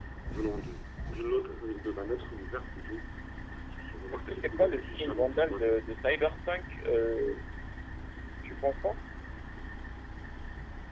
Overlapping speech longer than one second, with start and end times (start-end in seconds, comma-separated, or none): 4.1-5.8